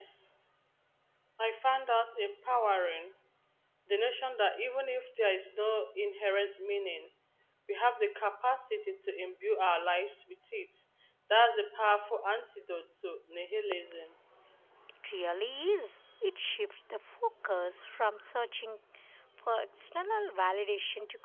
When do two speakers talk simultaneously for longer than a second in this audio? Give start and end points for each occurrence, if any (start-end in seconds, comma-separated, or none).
none